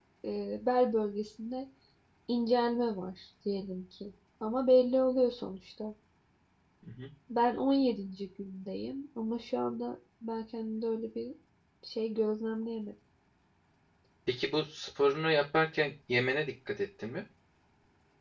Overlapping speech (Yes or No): No